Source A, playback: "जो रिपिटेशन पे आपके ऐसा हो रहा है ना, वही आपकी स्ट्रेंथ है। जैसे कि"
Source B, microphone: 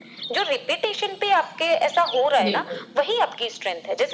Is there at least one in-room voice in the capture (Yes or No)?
Yes